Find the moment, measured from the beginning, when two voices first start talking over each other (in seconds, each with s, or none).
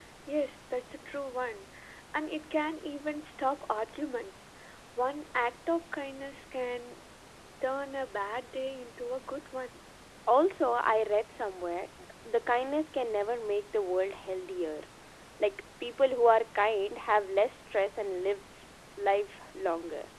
none